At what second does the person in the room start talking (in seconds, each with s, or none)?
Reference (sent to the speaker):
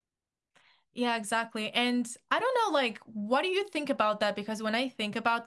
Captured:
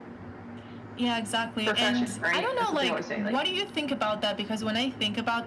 1.6 s